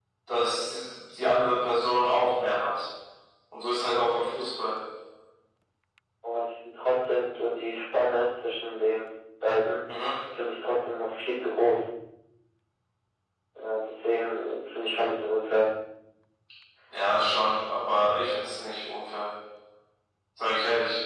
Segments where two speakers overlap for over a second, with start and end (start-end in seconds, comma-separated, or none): none